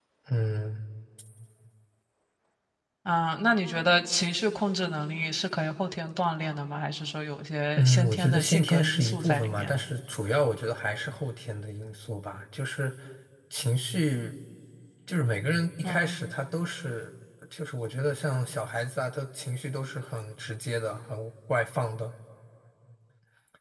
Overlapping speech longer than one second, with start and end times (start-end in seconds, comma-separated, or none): 7.8-9.7